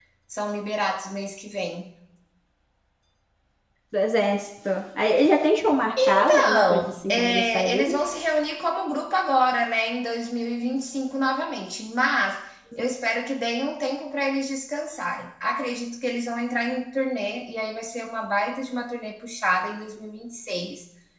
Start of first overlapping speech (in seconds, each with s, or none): 6.2 s